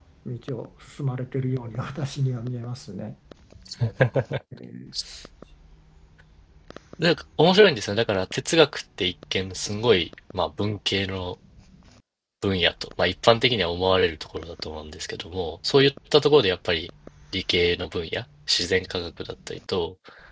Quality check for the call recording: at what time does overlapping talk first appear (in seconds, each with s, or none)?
none